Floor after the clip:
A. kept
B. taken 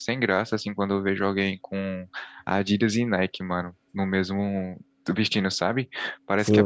B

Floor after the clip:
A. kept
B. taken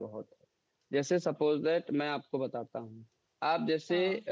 A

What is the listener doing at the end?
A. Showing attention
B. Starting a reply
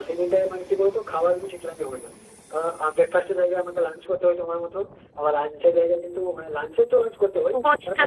B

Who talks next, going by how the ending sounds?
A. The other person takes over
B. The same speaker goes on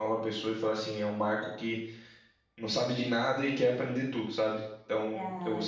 B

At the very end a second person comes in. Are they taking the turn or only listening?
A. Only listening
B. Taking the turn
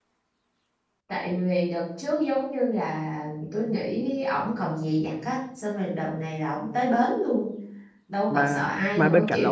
B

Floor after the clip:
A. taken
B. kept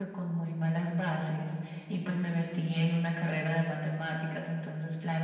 B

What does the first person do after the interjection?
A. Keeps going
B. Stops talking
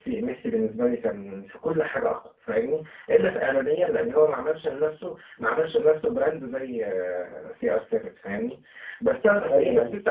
A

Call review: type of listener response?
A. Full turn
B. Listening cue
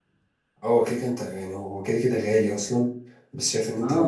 B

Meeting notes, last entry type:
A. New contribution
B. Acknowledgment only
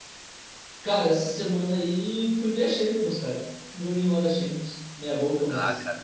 A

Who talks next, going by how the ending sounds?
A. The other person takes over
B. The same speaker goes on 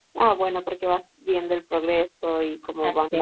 B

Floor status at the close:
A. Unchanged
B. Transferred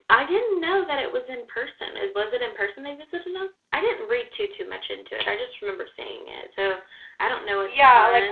B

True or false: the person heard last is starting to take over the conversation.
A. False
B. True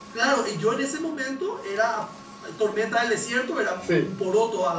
A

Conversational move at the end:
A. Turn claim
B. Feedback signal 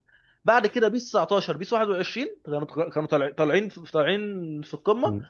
A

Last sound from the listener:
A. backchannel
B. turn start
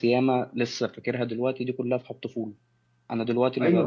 B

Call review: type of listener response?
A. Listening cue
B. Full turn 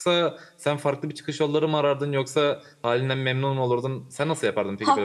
B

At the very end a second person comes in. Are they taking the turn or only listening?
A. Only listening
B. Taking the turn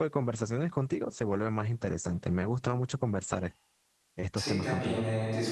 B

